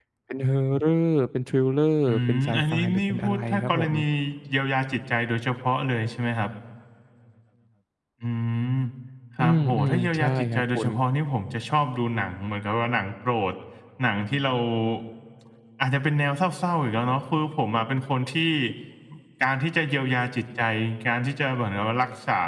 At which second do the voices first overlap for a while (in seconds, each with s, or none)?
2.1 s